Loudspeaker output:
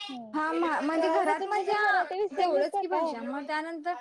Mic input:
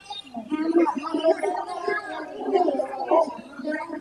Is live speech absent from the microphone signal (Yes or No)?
No